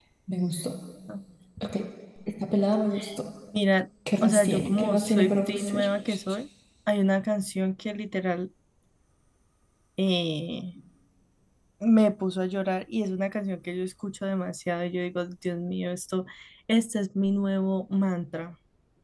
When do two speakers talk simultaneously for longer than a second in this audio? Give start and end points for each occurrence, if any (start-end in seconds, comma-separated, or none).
4.2-5.9